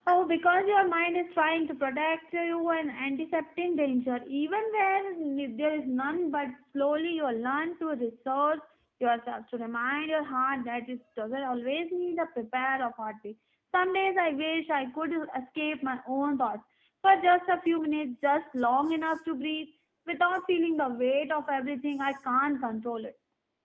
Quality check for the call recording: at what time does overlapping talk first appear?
none

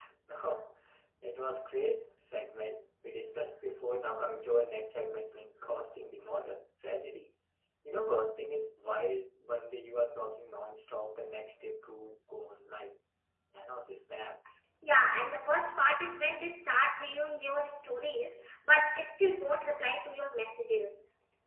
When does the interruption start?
none

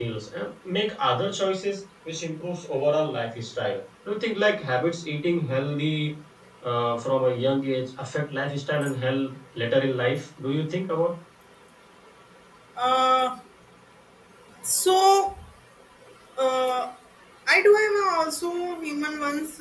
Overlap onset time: none

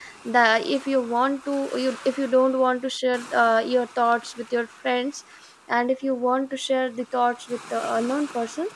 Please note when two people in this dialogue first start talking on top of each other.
none

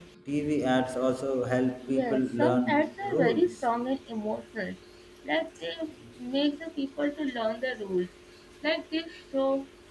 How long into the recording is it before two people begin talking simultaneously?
1.8 s

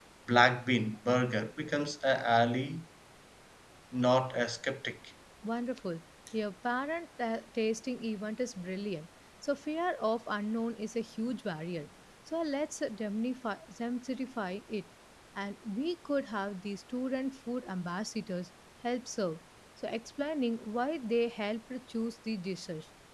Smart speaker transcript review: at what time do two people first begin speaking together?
none

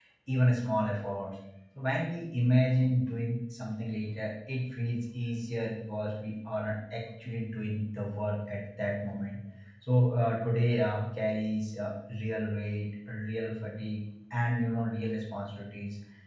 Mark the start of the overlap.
none

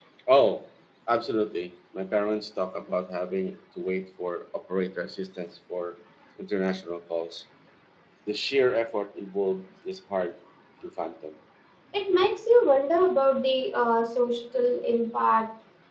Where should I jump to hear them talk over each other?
none

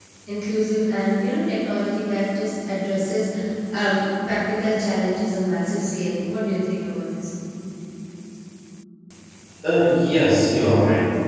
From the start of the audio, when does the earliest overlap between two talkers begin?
none

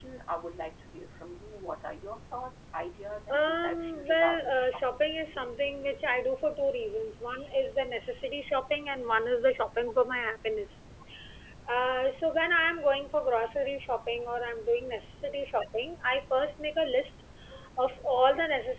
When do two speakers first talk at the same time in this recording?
3.3 s

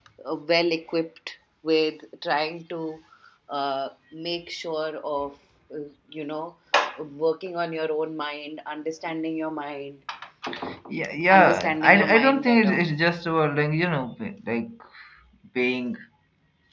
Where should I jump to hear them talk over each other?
11.3 s

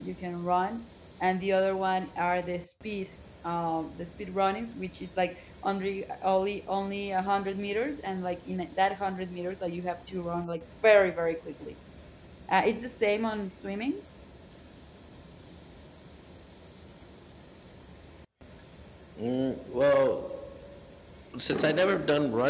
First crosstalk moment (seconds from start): none

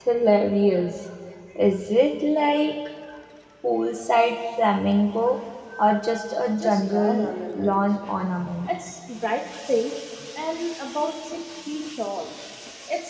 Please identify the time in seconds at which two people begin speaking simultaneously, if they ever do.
6.6 s

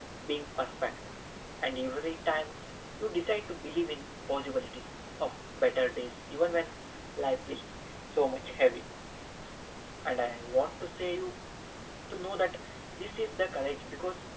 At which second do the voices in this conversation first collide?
none

